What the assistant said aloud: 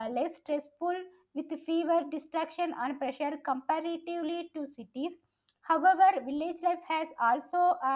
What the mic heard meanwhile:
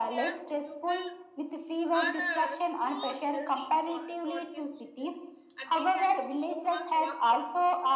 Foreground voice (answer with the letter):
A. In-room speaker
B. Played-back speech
B